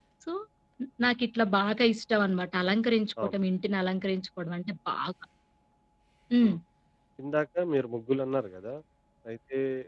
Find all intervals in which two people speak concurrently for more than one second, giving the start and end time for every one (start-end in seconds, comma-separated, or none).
none